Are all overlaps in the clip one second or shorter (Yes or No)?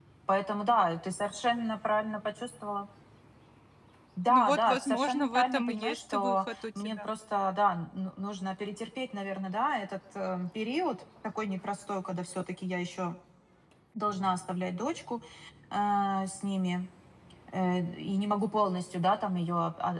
No